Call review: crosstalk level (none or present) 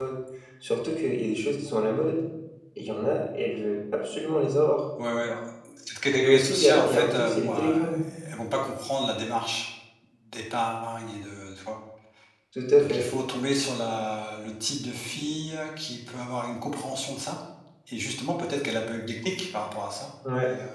present